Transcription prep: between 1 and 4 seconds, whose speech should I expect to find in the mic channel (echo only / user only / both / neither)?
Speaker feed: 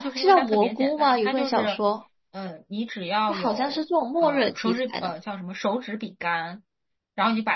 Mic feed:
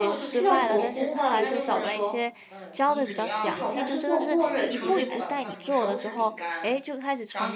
both